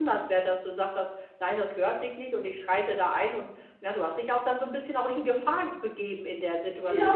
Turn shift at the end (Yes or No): Yes